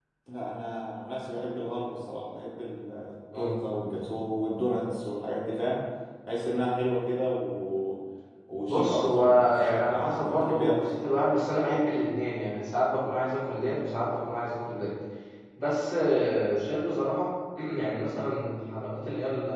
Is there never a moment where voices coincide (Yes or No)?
No